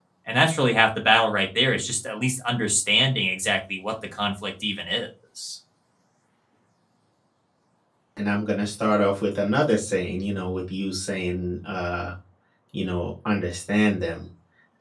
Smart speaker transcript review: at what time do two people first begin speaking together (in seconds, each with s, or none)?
none